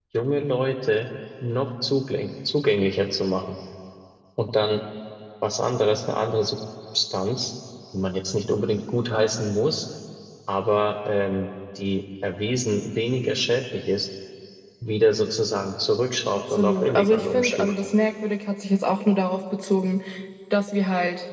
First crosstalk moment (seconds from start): 16.5 s

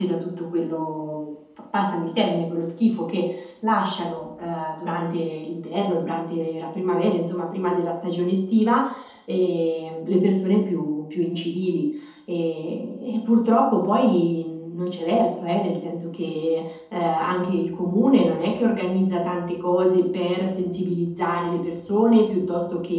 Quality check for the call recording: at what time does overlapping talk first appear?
none

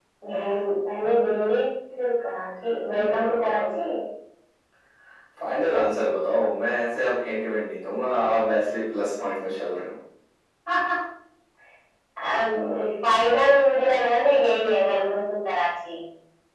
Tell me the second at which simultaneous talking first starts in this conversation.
none

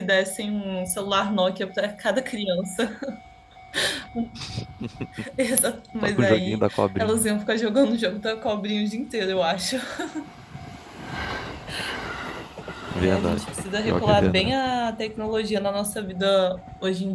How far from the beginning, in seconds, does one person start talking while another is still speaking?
6.0 s

